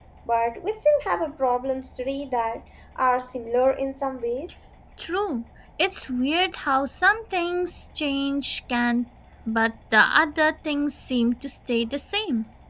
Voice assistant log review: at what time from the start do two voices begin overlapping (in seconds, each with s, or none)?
none